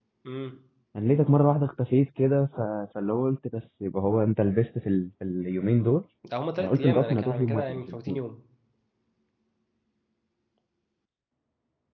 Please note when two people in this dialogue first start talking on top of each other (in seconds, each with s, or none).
6.6 s